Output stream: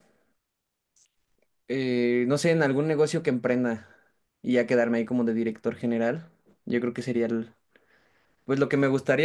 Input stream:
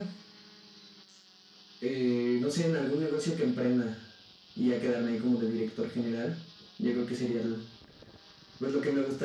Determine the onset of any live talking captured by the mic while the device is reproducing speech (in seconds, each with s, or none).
none